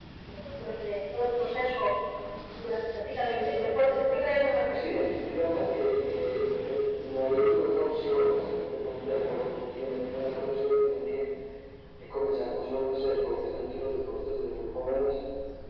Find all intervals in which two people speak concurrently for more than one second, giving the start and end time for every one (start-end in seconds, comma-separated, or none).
none